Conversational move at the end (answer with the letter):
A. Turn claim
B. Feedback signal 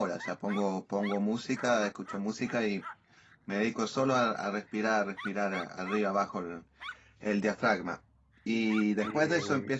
B